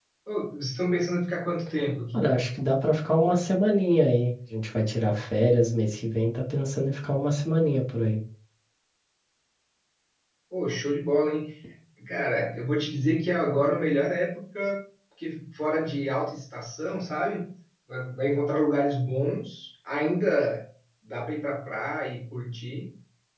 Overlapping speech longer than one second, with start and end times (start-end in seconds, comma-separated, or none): none